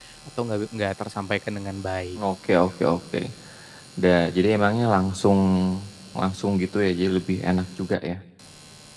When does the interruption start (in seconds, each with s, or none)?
none